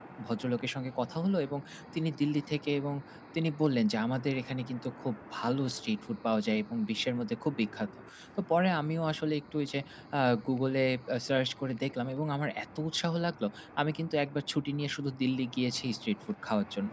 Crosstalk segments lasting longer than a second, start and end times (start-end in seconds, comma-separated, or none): none